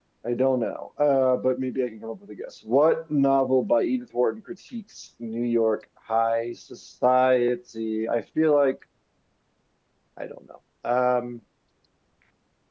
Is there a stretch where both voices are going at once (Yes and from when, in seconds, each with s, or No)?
No